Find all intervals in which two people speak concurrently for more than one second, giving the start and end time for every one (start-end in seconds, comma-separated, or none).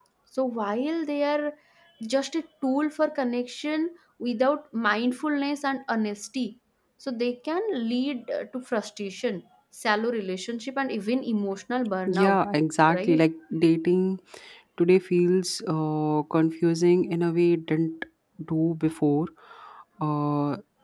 none